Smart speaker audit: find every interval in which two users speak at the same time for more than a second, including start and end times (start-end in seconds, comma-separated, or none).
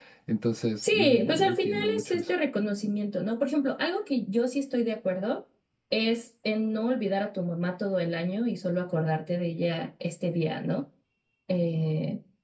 0.8-2.3